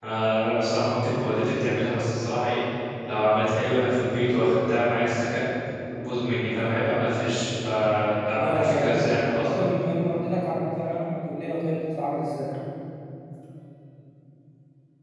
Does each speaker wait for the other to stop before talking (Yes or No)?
No